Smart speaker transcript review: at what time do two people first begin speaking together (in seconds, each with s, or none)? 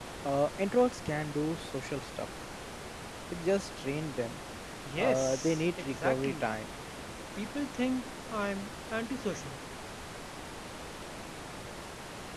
5.0 s